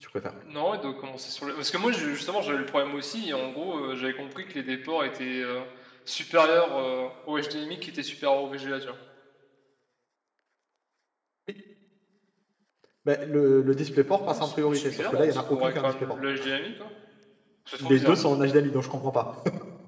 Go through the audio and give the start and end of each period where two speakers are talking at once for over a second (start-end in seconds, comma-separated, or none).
14.3-16.1